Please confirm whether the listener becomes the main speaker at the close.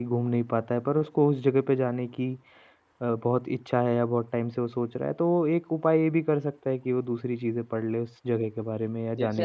Yes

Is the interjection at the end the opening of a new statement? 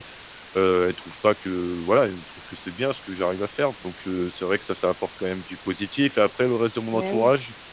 No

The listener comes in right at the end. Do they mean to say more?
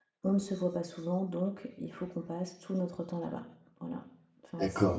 Yes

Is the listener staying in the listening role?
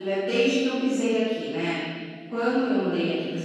Yes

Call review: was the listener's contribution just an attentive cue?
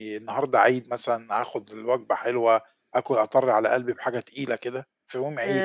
No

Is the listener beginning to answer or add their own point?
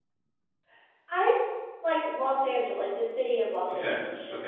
Yes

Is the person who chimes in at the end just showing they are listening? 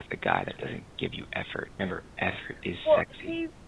No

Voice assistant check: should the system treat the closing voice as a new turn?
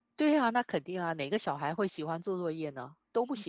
Yes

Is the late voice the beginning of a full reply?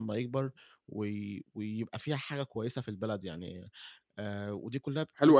Yes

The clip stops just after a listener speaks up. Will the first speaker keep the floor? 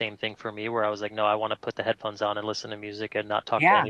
No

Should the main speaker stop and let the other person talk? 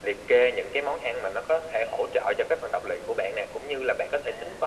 No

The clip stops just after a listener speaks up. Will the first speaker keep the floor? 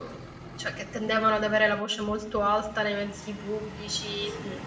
Yes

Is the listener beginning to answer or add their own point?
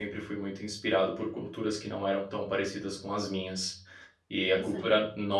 No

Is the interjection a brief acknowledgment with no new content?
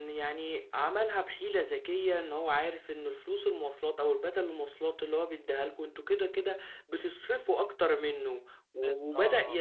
Yes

